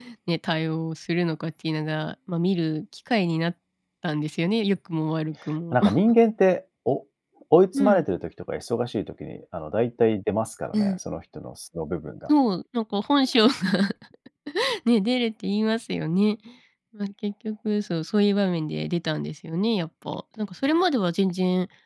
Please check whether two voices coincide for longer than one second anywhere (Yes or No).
No